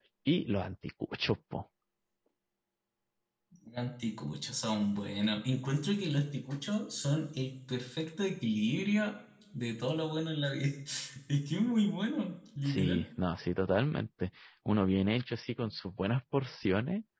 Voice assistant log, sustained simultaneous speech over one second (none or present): none